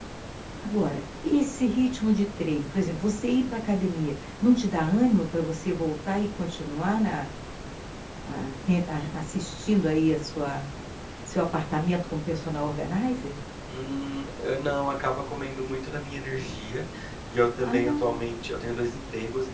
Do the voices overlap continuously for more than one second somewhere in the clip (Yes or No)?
No